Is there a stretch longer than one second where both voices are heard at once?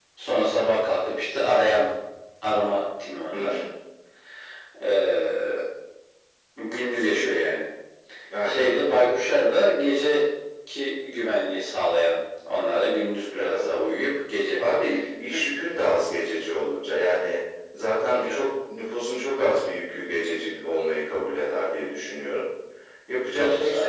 No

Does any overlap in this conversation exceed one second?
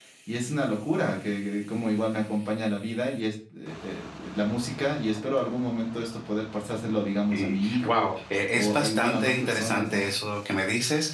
Yes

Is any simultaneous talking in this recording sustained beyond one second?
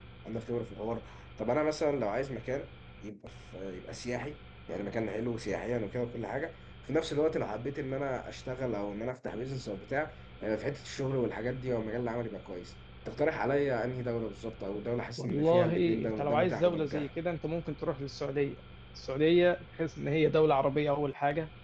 Yes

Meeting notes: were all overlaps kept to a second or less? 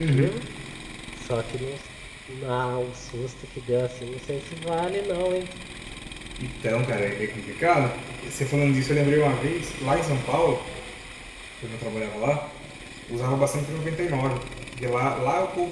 Yes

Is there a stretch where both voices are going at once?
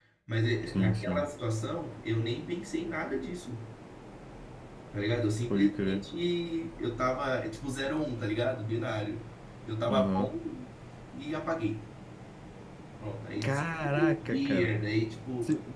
Yes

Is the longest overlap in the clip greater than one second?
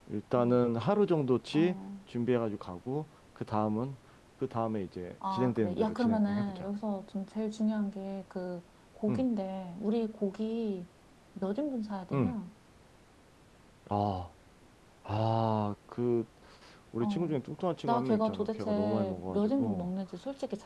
Yes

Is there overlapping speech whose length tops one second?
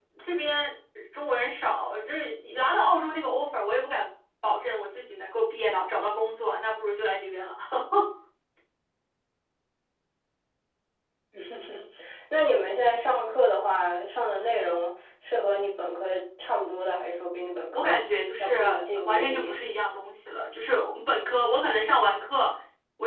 Yes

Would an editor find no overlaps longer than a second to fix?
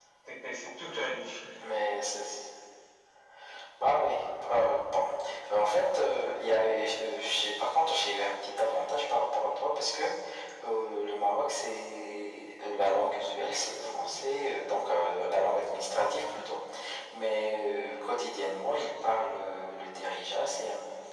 Yes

